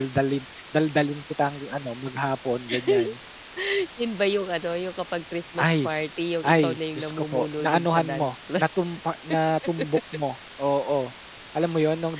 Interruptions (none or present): present